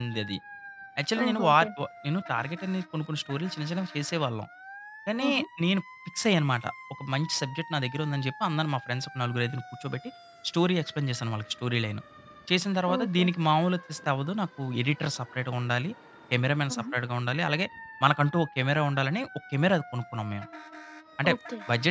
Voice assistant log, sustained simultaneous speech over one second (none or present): none